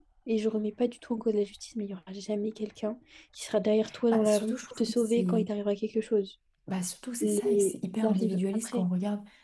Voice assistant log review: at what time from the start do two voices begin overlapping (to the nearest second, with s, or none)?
4 s